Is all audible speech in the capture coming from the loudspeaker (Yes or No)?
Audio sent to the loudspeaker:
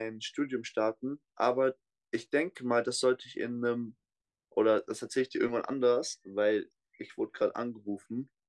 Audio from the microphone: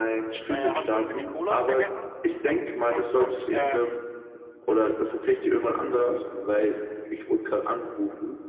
No